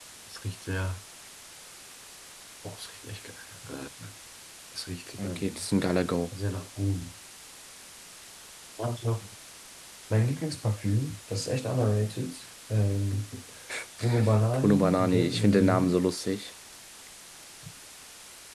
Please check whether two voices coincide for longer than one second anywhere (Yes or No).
Yes